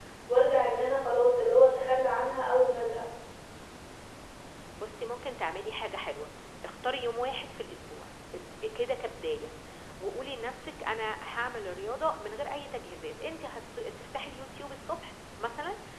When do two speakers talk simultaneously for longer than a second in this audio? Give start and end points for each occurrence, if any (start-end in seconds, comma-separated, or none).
none